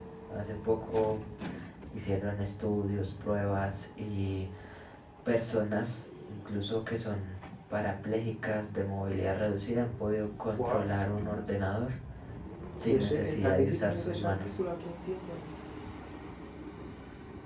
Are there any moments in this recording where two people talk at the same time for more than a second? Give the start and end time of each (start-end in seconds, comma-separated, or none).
12.8-14.6